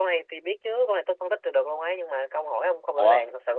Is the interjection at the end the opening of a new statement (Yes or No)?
Yes